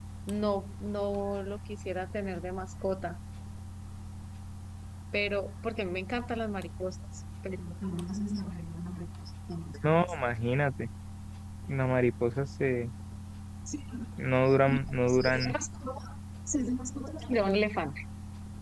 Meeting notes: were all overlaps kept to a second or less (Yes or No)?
Yes